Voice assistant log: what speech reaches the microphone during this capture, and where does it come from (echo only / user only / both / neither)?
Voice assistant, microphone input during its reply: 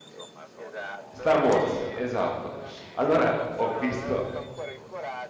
both